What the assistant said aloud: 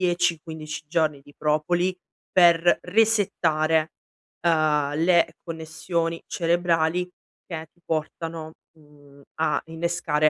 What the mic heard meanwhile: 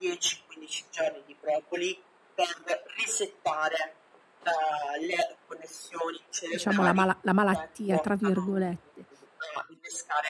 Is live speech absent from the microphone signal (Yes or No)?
No